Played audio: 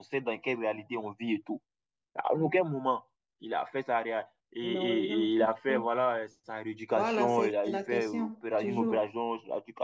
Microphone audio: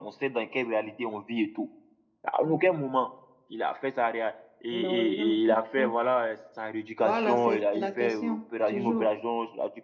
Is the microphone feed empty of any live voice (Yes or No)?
Yes